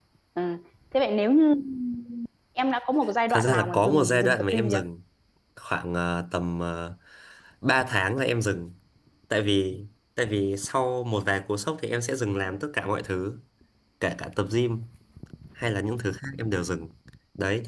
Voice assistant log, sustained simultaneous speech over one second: present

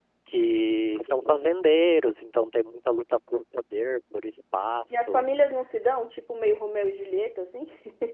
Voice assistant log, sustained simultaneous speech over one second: none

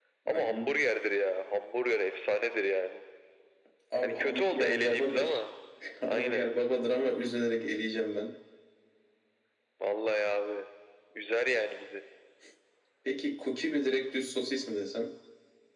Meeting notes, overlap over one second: present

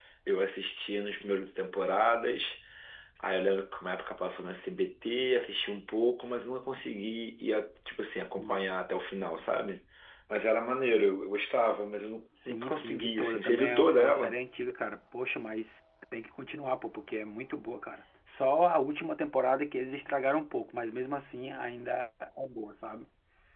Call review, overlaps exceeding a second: present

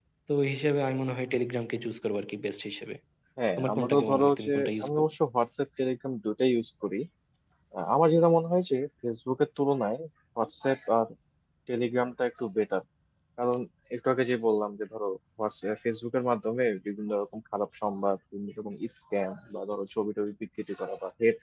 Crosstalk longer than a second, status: present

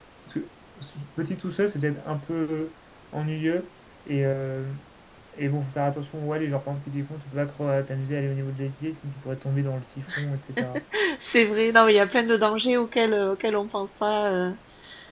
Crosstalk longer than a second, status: none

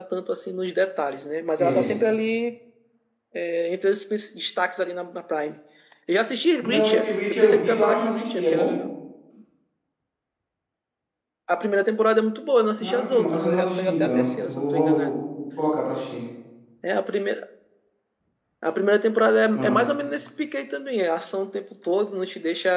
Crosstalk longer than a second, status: present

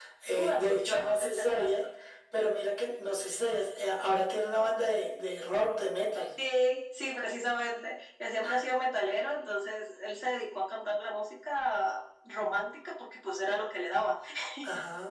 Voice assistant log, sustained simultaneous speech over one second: present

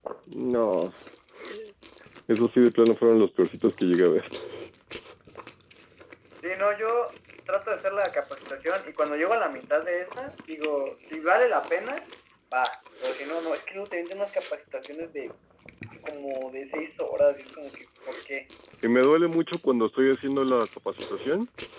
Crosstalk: none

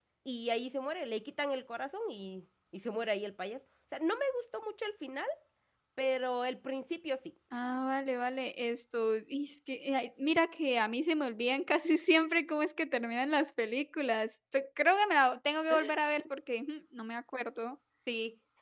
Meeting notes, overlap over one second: none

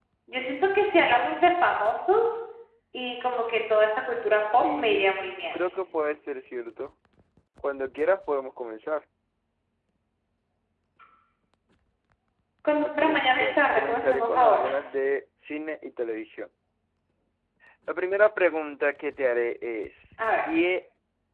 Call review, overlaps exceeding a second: present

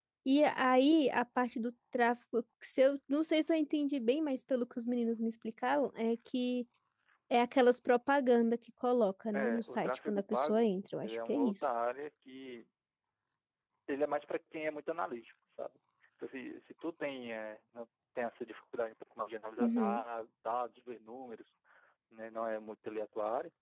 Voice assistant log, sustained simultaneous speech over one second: present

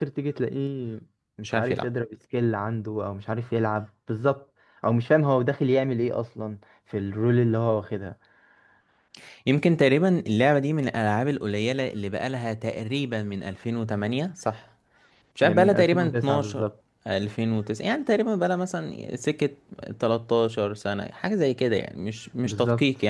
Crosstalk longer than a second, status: present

